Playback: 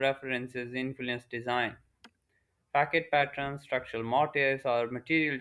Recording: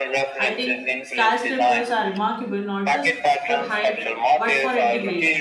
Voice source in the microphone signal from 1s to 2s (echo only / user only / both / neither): both